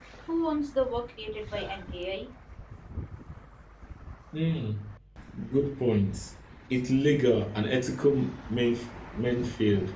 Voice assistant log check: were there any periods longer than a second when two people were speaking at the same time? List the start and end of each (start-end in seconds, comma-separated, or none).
none